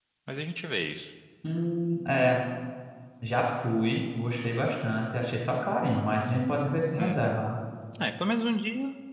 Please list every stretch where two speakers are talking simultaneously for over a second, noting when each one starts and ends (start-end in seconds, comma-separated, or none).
none